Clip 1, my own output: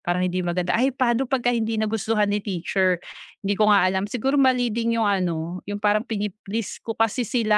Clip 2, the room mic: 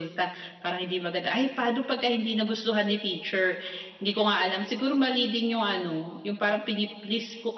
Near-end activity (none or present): none